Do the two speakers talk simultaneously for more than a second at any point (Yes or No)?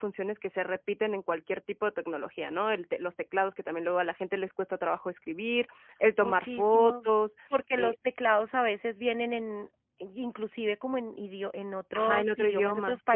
Yes